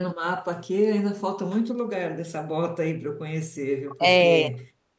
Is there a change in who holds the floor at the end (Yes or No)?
No